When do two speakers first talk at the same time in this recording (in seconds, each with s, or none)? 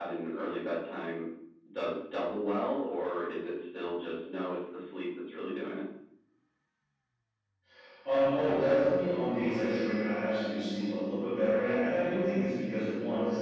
none